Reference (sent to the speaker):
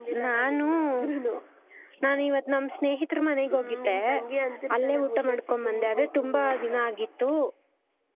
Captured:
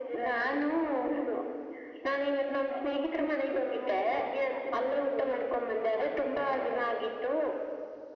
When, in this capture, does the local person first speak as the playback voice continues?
none

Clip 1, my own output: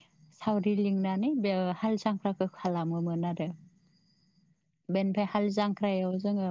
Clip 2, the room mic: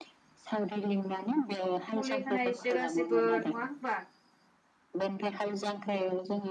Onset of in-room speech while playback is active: 2.0 s

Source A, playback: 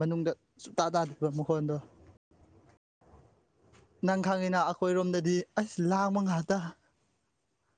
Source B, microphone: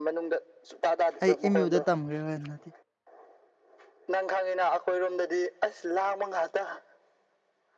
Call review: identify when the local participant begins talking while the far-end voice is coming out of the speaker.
1.2 s

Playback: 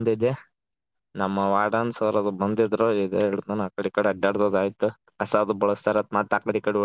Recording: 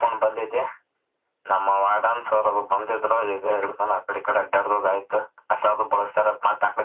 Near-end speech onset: none

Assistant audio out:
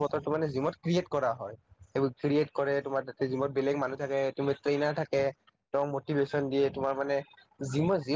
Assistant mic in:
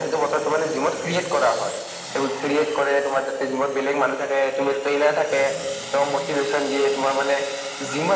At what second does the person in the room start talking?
none

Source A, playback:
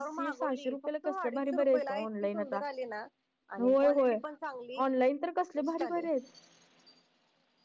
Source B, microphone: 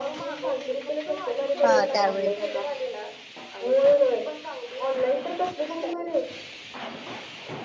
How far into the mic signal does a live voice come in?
1.6 s

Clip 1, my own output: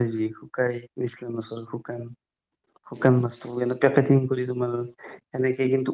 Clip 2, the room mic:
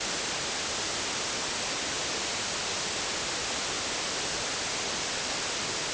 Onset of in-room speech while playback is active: none

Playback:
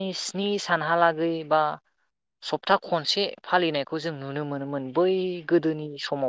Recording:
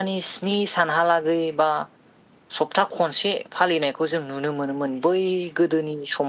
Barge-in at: none

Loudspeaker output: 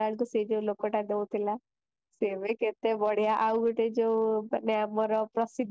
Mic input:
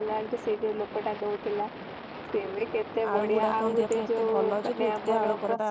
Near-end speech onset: 3.1 s

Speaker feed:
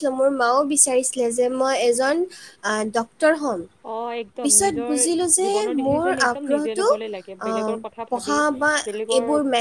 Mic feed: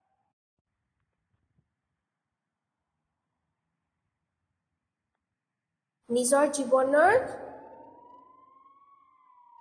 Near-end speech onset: 6.2 s

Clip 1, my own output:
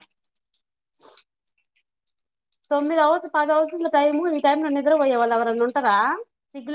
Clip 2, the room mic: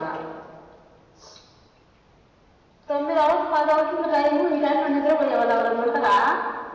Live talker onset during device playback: none

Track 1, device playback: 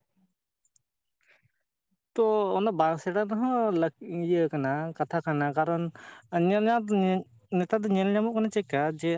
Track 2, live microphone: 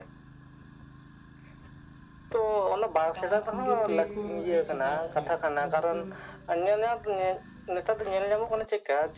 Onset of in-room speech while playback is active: 3.1 s

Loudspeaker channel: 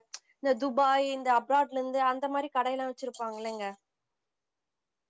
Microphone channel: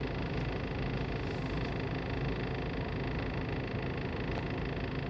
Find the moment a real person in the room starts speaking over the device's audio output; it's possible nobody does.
none

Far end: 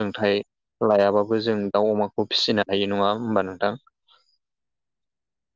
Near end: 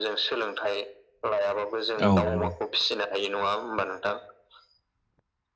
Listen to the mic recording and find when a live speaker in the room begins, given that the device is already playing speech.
2.1 s

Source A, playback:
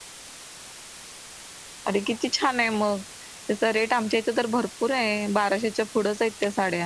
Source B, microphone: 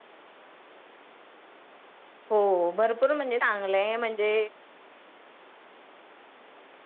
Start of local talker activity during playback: 2.3 s

